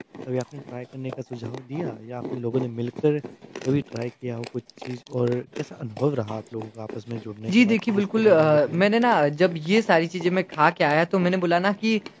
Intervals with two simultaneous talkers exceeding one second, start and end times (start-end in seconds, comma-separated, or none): 7.5-8.8